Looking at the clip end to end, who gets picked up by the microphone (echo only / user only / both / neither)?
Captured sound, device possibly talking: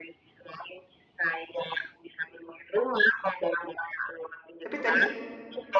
both